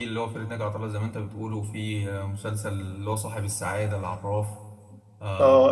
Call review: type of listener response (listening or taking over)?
taking over